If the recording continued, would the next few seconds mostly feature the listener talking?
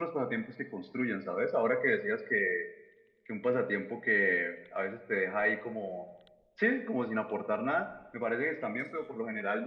No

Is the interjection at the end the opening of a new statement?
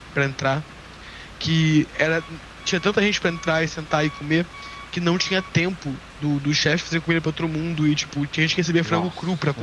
Yes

